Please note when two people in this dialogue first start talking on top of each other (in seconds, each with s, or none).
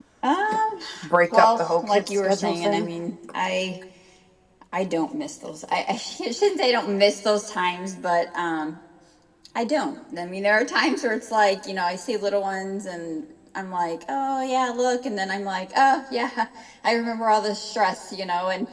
1.3 s